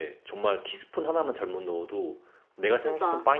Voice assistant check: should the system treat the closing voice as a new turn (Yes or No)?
No